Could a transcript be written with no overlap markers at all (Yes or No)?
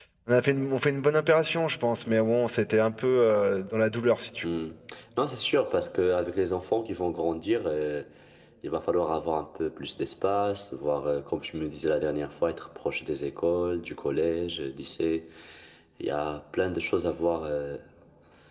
Yes